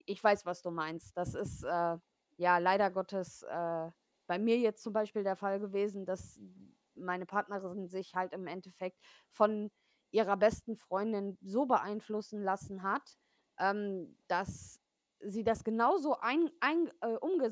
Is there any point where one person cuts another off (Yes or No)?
No